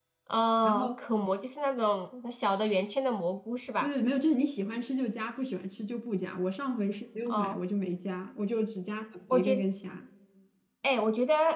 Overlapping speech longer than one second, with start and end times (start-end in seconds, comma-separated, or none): none